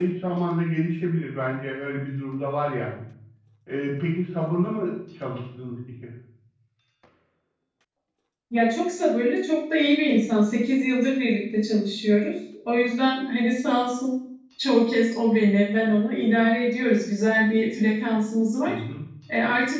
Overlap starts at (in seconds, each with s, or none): none